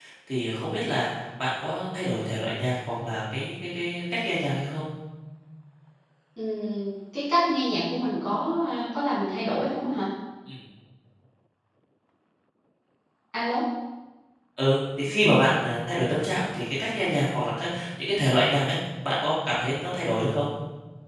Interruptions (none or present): none